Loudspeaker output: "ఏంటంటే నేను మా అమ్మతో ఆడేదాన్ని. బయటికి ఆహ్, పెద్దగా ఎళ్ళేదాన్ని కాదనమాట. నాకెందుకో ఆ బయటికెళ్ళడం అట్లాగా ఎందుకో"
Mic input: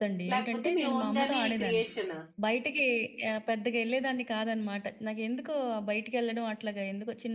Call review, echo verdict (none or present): present